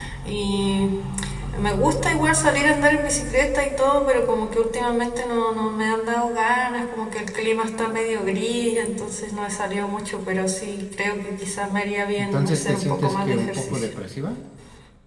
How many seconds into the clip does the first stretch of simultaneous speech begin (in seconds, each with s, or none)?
12.3 s